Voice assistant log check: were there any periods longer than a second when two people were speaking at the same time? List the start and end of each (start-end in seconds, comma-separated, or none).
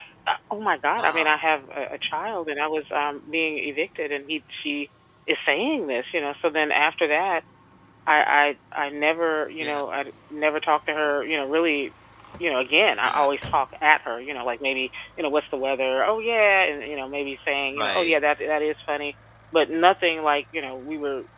none